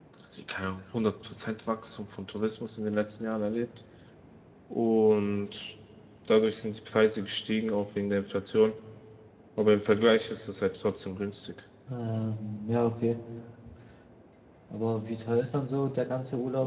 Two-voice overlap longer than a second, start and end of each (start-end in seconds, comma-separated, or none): none